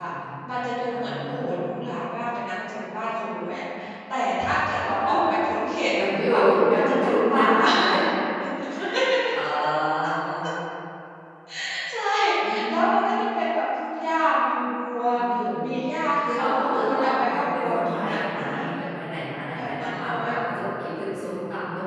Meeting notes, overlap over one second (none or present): present